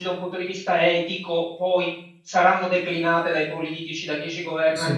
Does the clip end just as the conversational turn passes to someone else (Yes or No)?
No